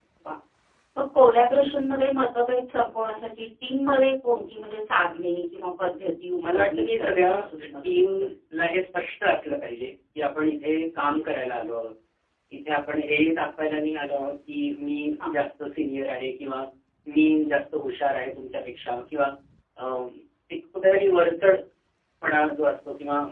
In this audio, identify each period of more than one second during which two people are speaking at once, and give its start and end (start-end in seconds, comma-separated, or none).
6.5-8.0